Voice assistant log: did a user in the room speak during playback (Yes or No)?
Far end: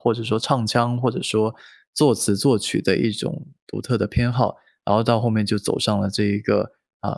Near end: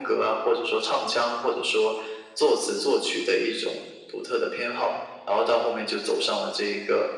No